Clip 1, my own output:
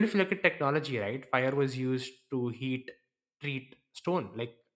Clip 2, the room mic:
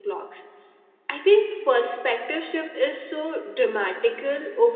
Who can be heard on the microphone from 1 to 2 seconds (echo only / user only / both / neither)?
user only